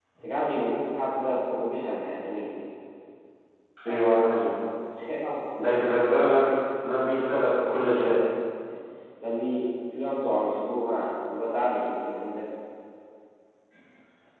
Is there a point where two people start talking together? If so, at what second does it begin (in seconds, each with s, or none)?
none